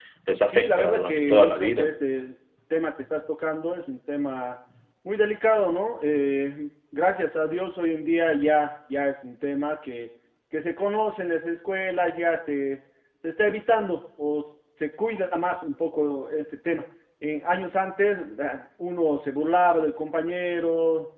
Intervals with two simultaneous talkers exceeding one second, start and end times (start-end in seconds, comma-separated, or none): 0.5-1.9